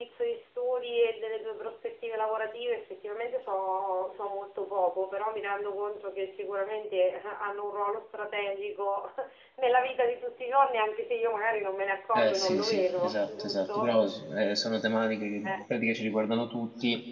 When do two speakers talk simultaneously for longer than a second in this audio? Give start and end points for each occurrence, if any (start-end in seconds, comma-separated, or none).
12.2-13.9